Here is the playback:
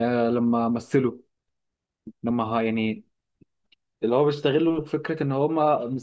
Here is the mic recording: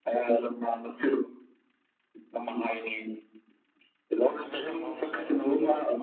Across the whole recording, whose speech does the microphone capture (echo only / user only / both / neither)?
both